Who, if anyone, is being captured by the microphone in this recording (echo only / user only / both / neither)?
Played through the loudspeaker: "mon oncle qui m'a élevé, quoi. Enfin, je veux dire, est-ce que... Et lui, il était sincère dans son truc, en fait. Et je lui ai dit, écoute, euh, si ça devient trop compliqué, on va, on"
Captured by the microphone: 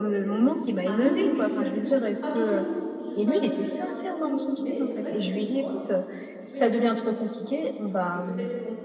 both